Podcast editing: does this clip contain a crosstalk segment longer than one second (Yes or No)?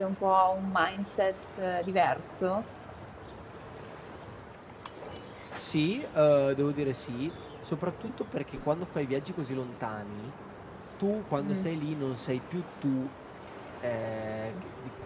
No